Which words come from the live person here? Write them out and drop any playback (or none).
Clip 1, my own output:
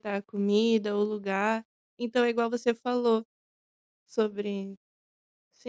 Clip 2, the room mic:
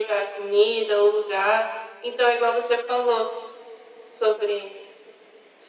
none